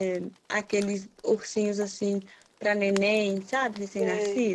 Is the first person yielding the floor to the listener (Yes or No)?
Yes